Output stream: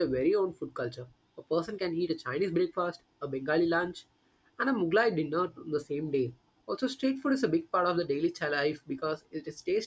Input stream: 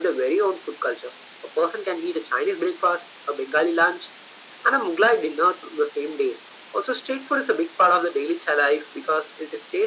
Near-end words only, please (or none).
none